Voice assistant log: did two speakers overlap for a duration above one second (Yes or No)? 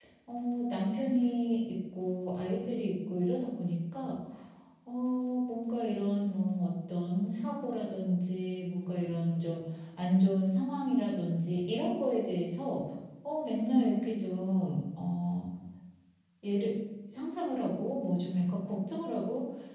No